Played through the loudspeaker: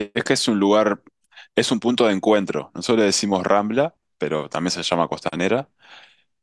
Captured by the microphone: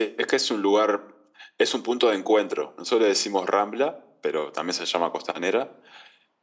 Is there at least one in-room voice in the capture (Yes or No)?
No